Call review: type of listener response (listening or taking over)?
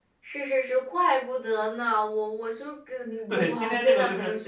taking over